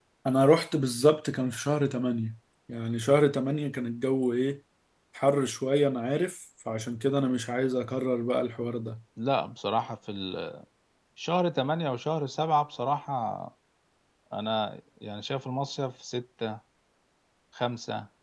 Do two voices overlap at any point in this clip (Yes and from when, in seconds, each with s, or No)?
No